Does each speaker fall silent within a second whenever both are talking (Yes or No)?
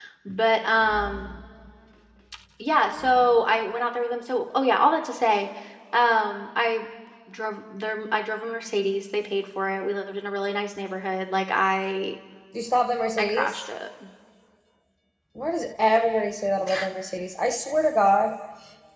Yes